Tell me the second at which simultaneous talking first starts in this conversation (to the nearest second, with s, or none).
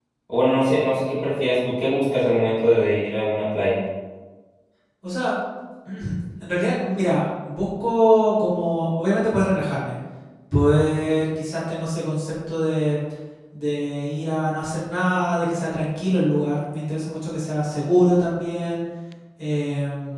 none